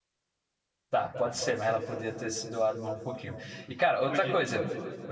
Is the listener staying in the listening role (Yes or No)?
Yes